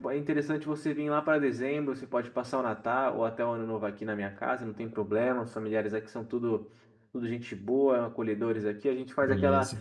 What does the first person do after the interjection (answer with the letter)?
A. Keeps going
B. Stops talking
A